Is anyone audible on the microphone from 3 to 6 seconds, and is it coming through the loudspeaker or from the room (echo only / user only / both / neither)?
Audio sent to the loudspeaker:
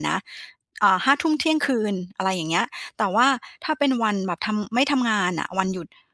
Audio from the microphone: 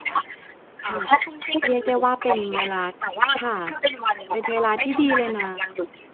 both